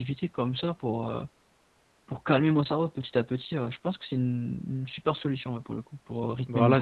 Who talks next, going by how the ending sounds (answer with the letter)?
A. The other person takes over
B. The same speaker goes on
A